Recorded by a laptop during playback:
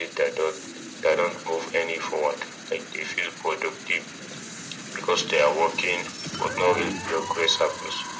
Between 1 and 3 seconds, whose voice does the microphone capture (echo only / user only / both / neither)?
echo only